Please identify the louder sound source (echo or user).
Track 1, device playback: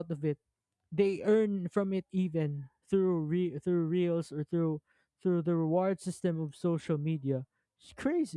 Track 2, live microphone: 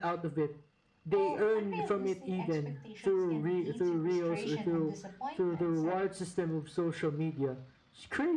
echo